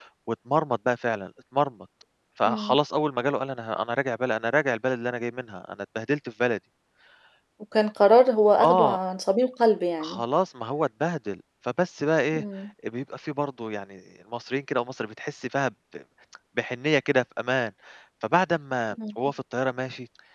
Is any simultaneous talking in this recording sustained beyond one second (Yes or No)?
No